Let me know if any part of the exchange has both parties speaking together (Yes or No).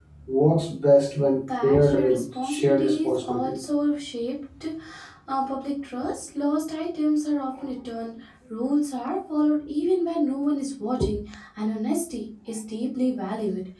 Yes